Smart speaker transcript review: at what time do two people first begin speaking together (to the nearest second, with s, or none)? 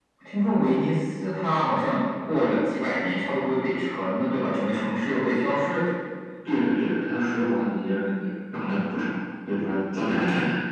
none